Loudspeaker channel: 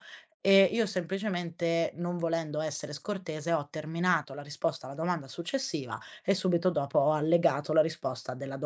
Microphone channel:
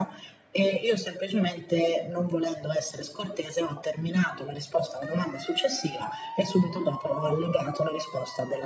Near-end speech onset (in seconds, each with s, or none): none